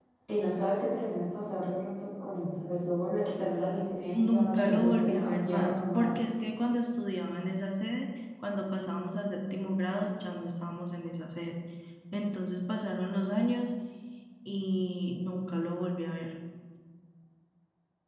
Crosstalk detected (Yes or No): Yes